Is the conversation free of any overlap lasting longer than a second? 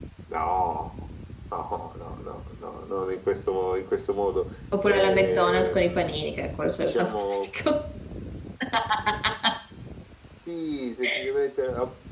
No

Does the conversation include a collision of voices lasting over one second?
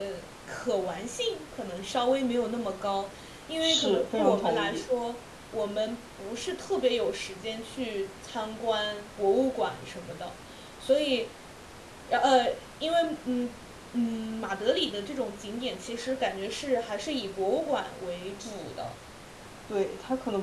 Yes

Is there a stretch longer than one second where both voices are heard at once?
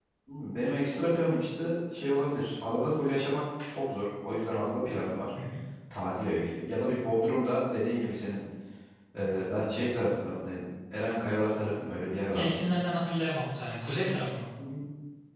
No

